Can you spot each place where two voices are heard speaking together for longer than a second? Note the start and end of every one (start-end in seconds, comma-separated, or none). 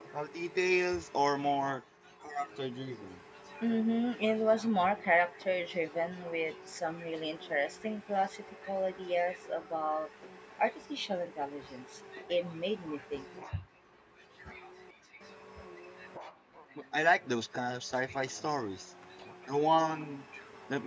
none